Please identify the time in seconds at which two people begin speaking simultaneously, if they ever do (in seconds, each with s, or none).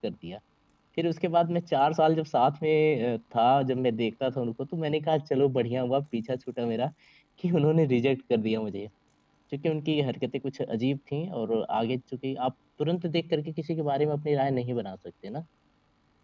none